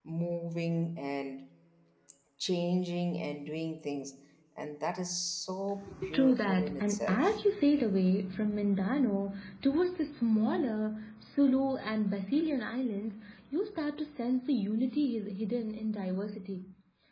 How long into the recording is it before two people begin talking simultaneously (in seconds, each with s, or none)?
6.1 s